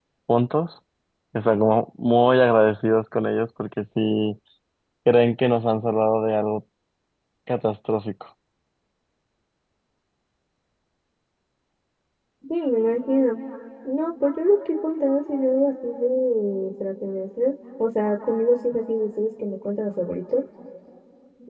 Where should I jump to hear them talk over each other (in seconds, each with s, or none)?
none